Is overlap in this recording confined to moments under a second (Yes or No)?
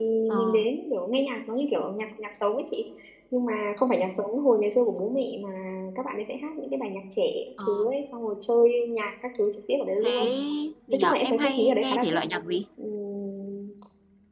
No